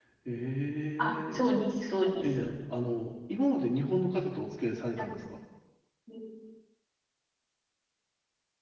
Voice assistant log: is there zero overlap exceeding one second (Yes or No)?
Yes